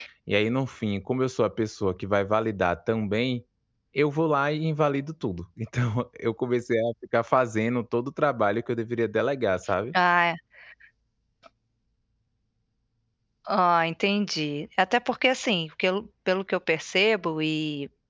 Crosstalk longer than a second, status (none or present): none